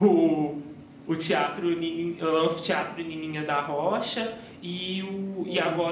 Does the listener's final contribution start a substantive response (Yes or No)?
No